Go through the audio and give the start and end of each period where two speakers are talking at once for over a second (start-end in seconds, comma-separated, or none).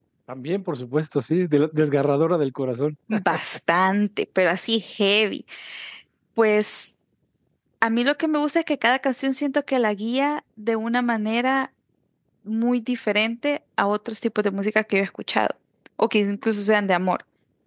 none